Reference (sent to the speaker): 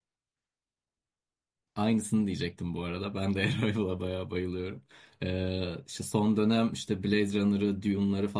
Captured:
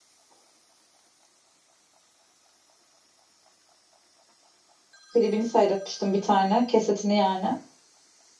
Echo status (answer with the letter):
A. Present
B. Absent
B